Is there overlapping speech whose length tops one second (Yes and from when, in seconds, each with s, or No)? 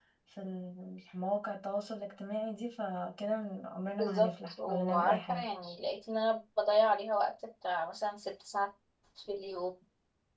Yes, from 4.0 s